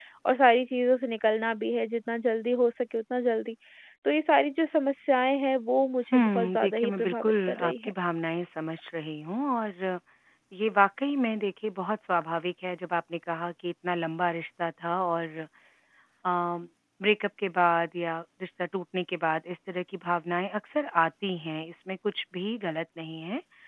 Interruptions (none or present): present